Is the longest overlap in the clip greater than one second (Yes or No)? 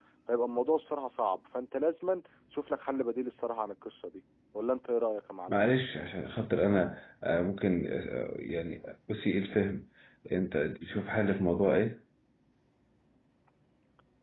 No